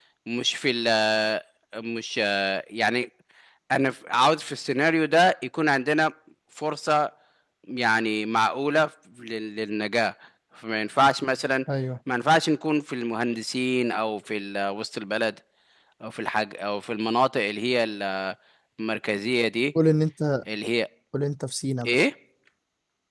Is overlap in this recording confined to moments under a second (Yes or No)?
Yes